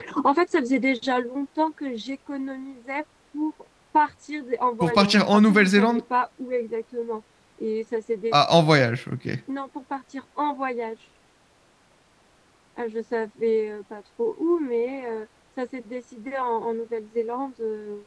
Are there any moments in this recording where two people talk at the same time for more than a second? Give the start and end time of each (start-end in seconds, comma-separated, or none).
4.8-6.0